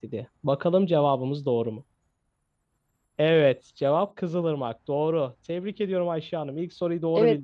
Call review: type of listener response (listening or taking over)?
taking over